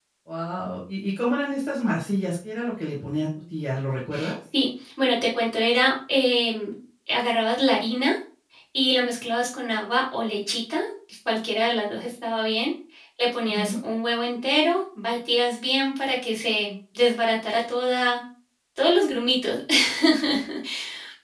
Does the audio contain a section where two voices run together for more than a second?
No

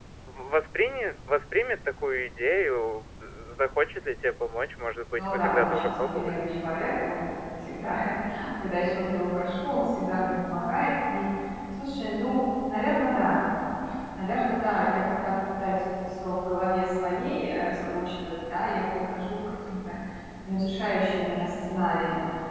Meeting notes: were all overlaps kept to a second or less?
No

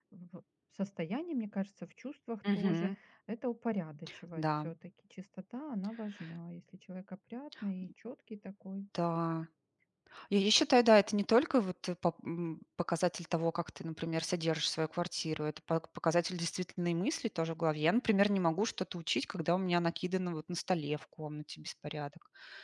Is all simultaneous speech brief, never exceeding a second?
Yes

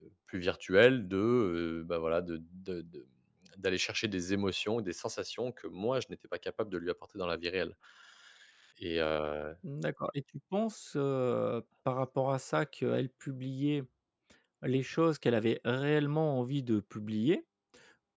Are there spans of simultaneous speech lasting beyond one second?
No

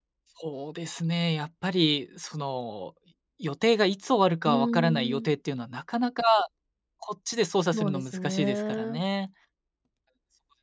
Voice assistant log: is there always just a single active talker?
No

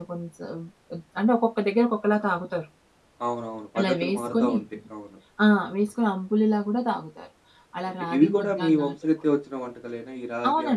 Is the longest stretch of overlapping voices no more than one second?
No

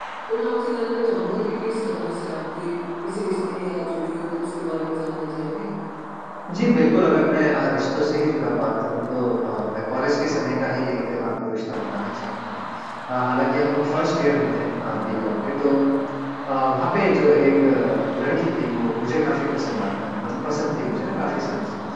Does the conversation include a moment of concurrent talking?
No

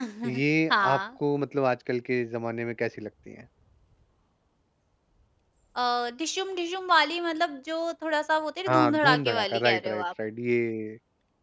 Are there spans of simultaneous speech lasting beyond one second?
Yes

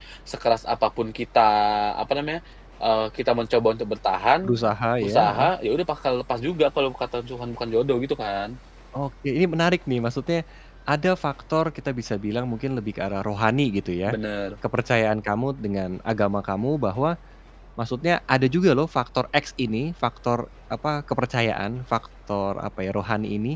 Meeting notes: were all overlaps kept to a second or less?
Yes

